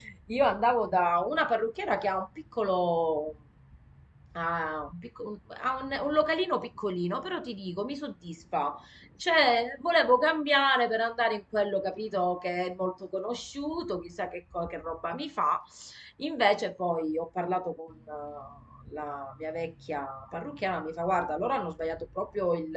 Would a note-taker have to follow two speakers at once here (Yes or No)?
No